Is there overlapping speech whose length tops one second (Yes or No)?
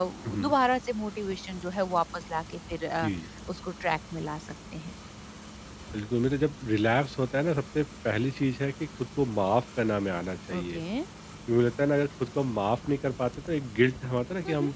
No